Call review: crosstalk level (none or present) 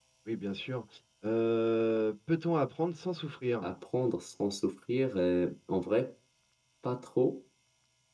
none